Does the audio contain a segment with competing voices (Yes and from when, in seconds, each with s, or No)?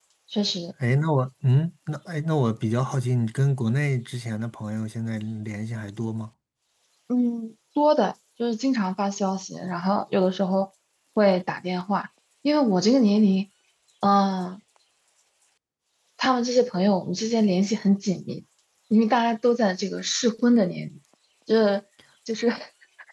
No